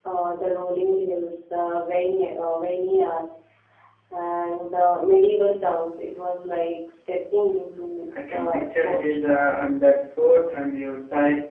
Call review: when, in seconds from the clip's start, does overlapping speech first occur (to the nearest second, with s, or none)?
8 s